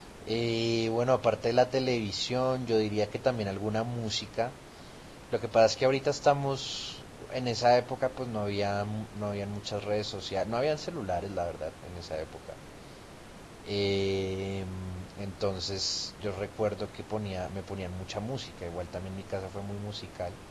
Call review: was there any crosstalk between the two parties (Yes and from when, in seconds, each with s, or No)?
No